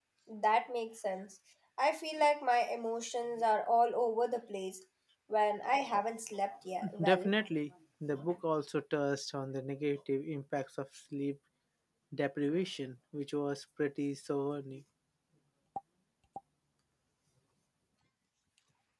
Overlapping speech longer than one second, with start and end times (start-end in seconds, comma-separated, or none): none